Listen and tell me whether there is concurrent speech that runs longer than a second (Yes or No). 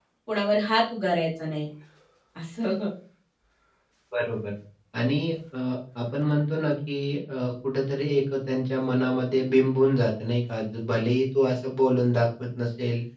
No